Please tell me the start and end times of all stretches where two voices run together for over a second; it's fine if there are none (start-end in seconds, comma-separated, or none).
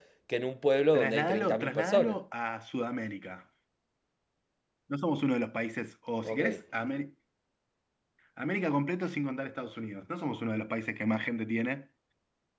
0.9-2.2